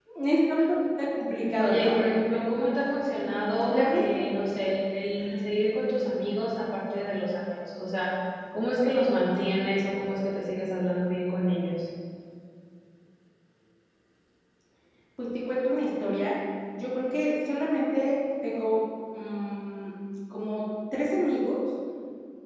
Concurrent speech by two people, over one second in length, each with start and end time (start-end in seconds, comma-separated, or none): none